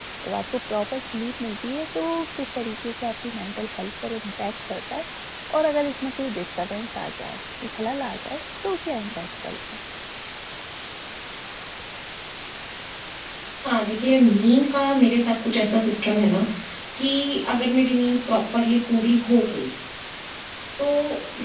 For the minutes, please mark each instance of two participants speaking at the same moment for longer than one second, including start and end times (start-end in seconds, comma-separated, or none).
none